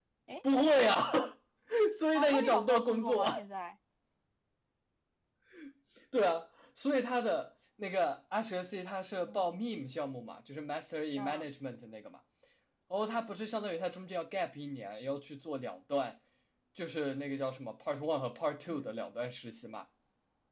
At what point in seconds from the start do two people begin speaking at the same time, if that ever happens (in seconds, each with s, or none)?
2.1 s